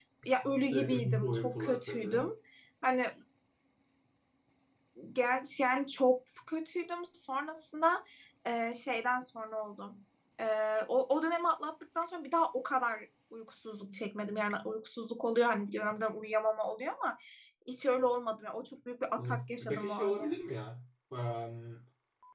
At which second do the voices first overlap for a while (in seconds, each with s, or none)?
0.7 s